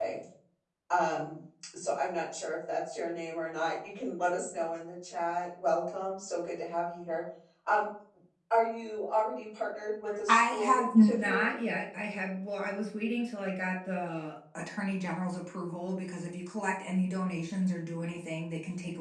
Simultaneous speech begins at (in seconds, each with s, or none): 10.1 s